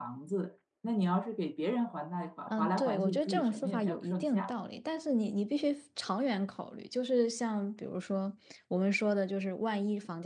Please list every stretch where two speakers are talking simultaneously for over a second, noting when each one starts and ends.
2.5-4.5

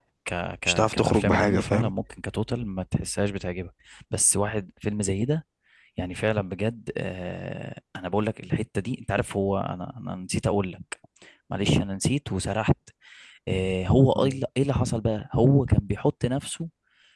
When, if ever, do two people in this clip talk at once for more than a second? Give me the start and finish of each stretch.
0.7-1.9

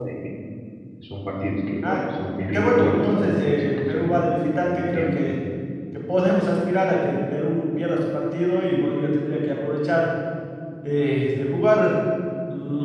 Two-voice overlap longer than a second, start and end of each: 2.5-4.2

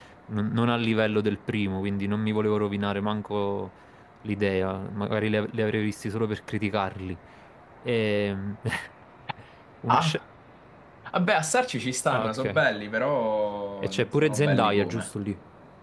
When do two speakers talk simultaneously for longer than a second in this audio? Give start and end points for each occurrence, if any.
13.8-15.1

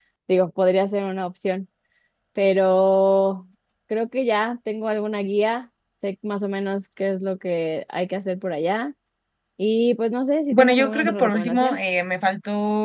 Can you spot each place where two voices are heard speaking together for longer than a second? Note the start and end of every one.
10.5-11.8

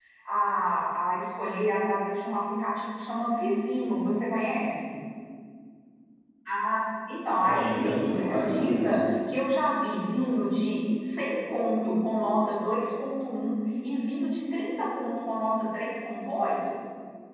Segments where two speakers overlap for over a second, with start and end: 7.4-9.0

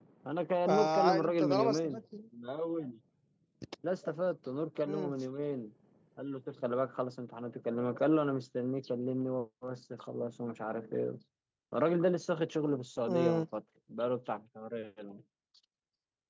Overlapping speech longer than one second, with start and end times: 0.7-2.0

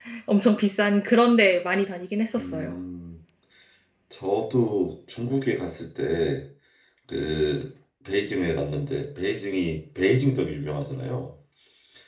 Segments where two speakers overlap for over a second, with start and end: none

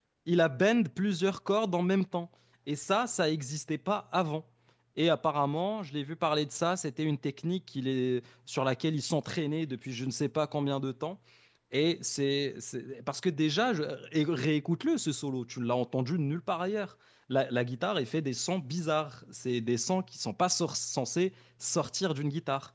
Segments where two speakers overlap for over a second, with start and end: none

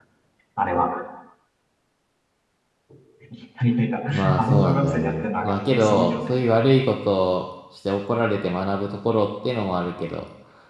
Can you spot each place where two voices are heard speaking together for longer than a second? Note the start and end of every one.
4.1-6.4

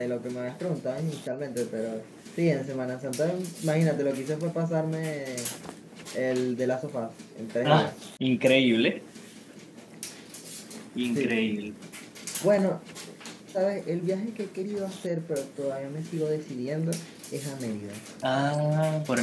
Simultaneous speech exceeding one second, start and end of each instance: none

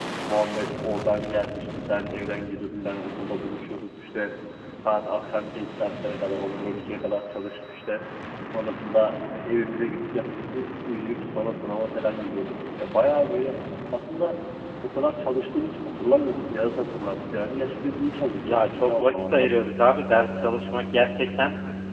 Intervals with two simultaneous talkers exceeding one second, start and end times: 18.4-19.7

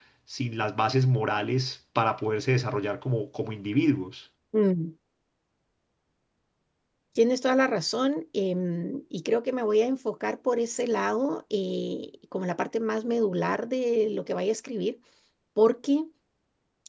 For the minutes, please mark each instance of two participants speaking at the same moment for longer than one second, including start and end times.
none

